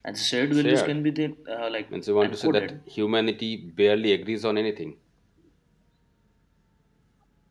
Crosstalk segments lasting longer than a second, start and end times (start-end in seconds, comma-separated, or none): none